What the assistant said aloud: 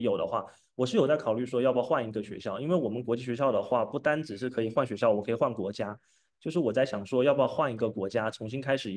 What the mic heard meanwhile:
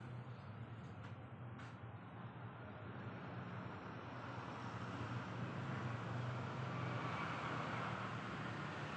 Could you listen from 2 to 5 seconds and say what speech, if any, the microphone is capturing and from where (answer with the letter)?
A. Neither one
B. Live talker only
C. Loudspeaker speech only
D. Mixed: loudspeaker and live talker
A